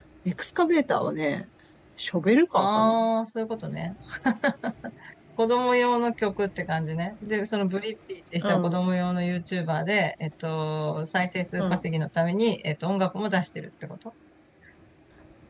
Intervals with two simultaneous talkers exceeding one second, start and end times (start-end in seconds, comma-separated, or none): none